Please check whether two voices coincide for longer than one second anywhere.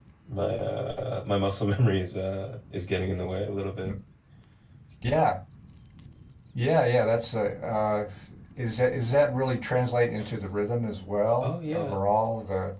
No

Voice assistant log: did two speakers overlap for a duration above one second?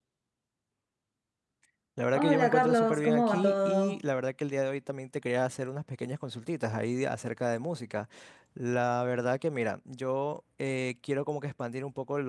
Yes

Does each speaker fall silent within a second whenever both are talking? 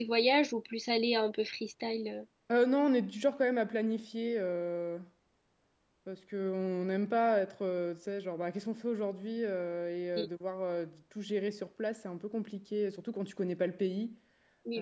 Yes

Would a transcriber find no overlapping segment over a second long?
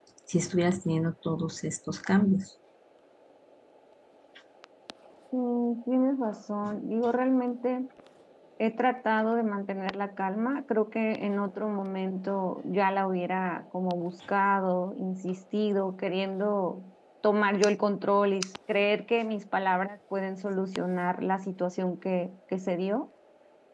Yes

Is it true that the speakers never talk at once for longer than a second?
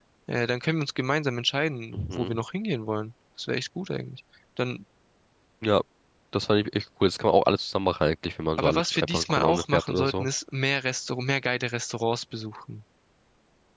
No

